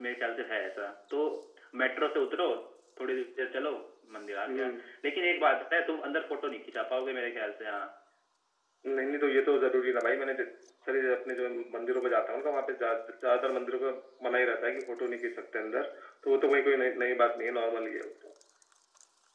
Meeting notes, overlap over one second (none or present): none